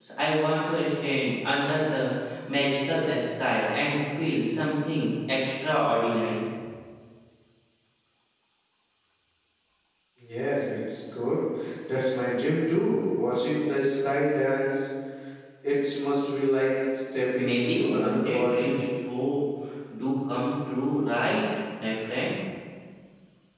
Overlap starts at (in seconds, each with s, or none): 17.3 s